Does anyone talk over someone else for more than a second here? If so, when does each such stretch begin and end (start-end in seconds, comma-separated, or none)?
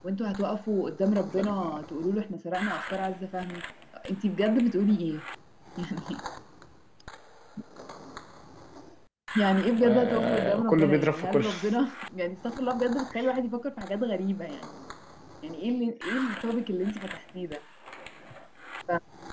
9.8-11.5